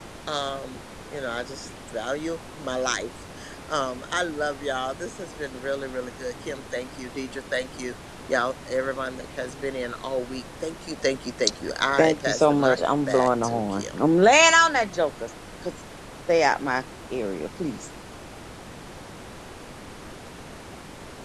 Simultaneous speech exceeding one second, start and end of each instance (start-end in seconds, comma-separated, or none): 12.0-13.8